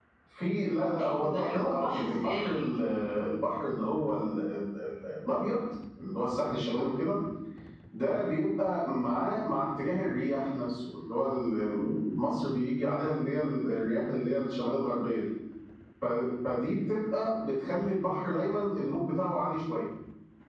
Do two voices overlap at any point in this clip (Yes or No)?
Yes